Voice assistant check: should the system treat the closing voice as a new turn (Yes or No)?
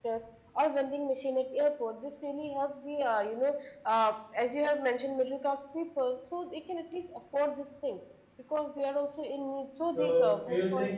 Yes